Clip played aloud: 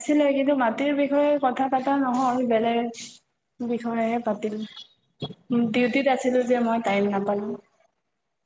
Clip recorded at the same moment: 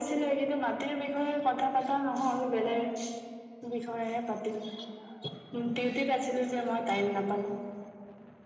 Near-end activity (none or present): none